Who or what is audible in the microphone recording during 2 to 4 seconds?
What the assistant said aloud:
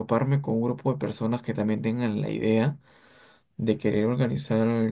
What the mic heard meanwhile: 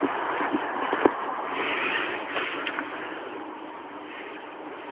neither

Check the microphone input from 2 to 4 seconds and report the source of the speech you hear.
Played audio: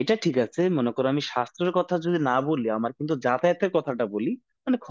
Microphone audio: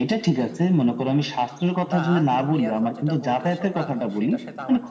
both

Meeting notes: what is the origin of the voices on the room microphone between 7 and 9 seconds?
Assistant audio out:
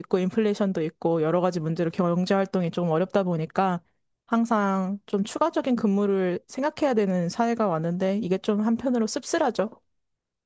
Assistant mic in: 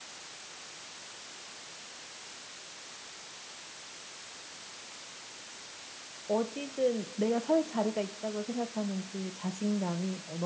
user only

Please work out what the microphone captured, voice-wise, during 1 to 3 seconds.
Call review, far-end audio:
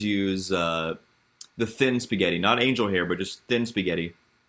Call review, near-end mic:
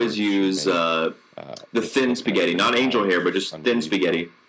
both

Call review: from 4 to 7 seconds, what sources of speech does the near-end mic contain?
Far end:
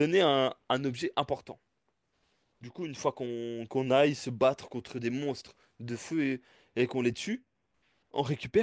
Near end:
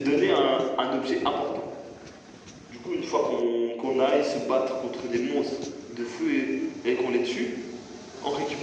echo only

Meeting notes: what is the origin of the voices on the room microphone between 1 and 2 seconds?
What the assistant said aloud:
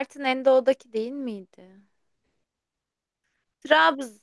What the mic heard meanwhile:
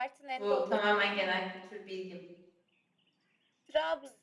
both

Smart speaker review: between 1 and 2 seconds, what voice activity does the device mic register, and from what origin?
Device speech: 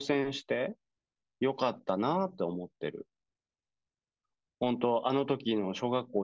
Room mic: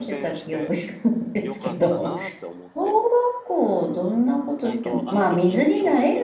both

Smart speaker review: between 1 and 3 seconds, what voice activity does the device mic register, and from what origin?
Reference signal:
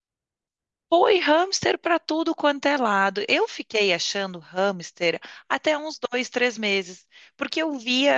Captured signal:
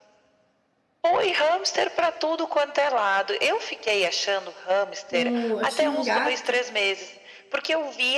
echo only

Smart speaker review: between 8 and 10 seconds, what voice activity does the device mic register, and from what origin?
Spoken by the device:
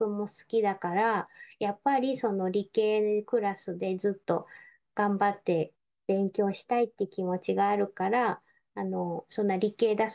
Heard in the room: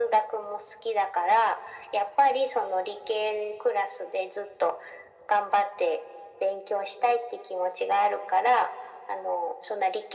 echo only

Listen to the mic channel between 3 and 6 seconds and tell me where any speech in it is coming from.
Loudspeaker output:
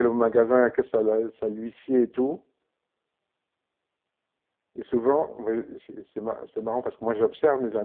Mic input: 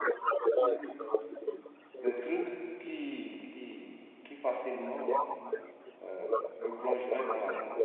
both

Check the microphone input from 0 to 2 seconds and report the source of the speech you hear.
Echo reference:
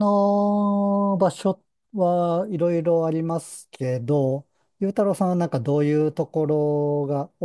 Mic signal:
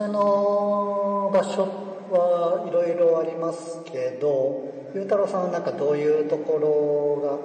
echo only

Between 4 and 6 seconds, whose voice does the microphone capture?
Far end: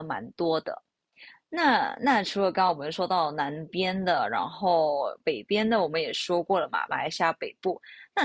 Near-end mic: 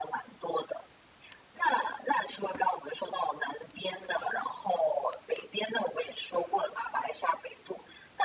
echo only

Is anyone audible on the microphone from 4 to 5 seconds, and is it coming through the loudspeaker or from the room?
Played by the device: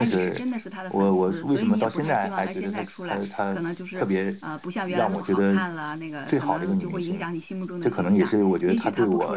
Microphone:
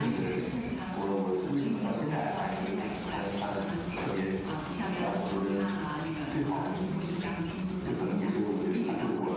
echo only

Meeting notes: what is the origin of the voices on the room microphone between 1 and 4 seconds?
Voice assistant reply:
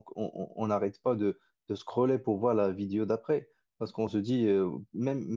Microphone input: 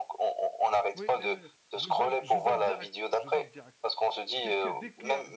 both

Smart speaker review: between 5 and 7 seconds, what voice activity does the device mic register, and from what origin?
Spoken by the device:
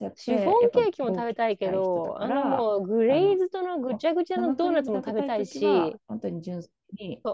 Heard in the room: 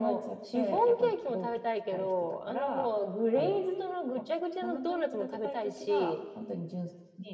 echo only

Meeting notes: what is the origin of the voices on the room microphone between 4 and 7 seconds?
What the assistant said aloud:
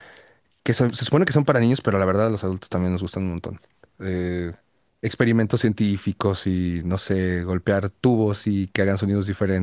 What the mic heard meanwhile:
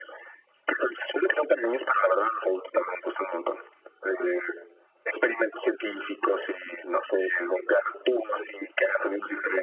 echo only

